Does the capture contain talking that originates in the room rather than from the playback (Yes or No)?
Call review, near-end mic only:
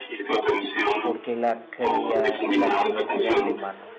Yes